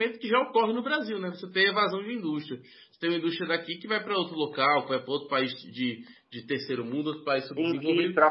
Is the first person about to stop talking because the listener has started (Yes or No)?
Yes